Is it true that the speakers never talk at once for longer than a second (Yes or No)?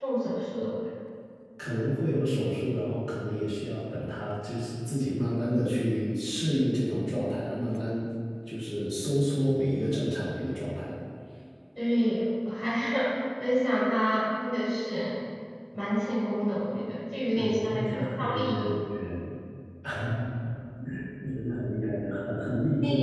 No